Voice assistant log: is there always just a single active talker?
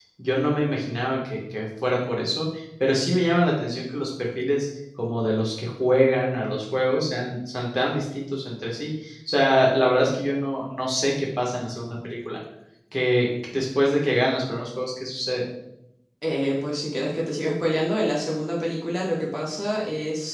Yes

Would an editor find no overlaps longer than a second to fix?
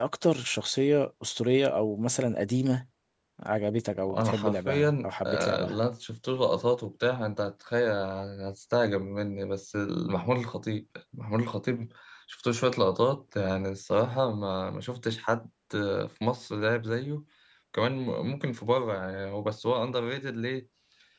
No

